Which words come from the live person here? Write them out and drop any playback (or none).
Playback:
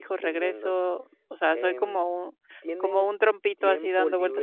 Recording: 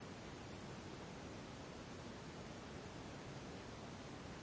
none